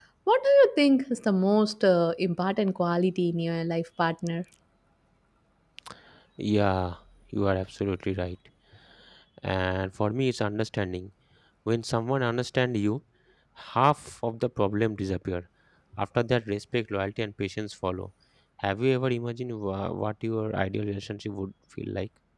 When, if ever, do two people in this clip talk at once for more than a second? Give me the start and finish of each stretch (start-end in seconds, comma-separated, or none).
none